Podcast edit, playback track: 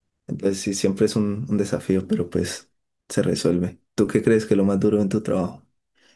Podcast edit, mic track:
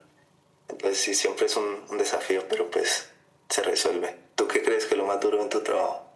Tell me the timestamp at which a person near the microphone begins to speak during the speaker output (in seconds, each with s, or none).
none